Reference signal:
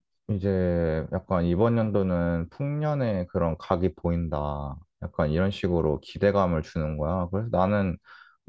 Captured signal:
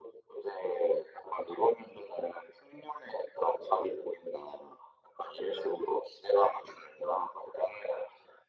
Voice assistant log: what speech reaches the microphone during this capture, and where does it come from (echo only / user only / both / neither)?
echo only